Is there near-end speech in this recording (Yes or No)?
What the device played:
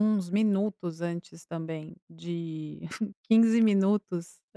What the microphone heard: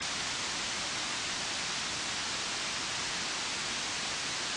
No